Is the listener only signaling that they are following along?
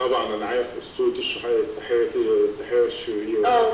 No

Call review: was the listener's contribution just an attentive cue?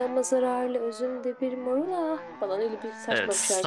No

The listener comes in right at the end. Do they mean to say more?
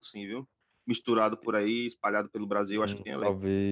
Yes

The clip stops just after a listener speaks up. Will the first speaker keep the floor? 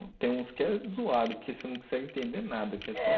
No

